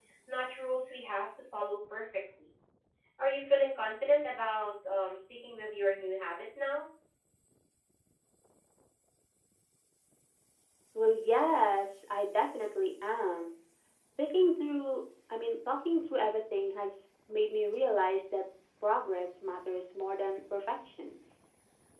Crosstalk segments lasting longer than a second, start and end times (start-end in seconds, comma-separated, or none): none